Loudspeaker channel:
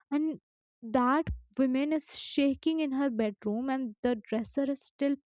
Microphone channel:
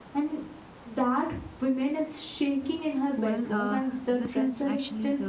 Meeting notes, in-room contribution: present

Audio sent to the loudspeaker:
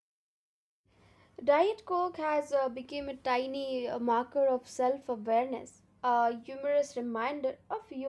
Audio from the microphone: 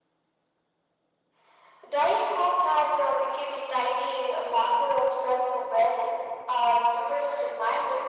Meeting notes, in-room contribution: none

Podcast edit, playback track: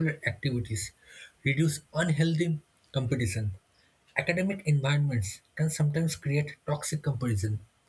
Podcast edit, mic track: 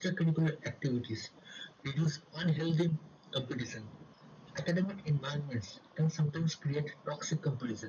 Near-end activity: none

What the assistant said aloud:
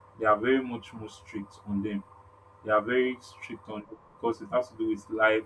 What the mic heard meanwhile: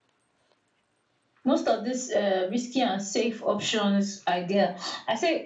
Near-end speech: present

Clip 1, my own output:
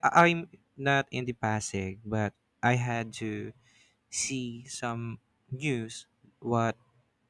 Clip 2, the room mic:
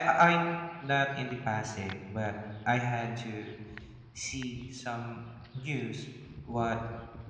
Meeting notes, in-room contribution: none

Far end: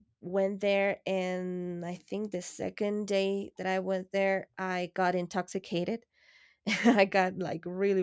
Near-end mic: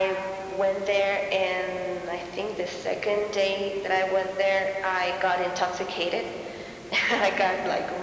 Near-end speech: none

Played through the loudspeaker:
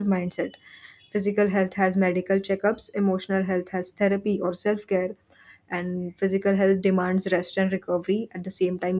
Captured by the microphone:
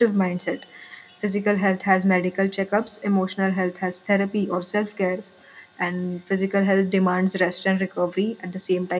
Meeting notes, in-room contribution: none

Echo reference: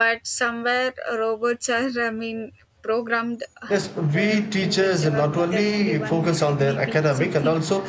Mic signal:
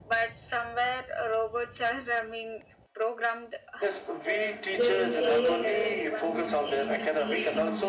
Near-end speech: present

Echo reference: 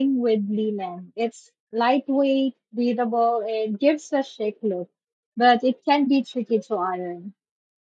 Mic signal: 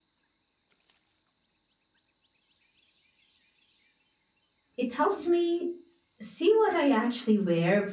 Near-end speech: present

